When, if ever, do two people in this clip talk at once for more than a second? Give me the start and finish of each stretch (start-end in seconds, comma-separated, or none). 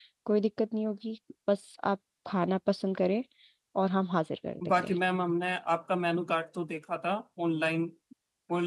none